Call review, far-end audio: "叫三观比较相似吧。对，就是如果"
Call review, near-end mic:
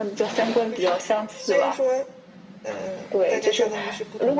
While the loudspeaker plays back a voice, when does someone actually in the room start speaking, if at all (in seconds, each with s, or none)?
0.6 s